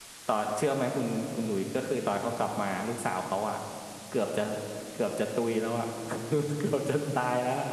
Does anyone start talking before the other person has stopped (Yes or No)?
No